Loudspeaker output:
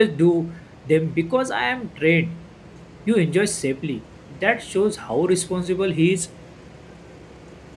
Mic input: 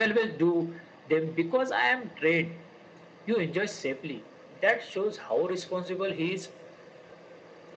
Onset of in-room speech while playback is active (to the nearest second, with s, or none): none